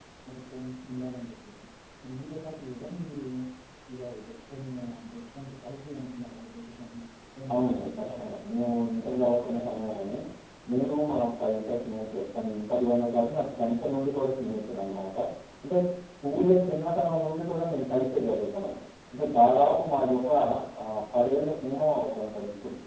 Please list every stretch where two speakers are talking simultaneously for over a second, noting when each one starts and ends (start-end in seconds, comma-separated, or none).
7.5-10.2